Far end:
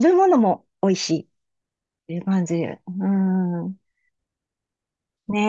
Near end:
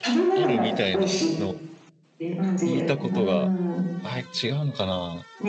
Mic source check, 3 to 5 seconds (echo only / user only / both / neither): both